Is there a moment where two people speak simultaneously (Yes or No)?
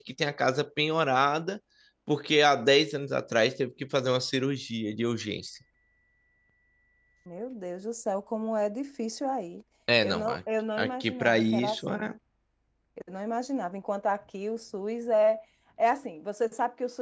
Yes